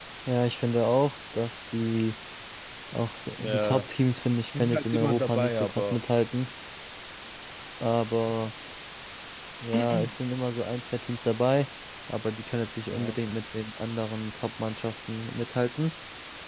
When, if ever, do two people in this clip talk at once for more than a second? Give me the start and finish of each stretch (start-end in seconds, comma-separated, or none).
4.5-6.0